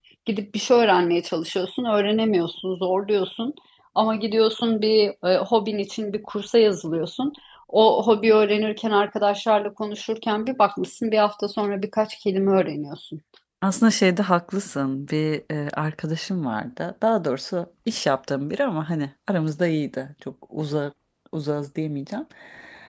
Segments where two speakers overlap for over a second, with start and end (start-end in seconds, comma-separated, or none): none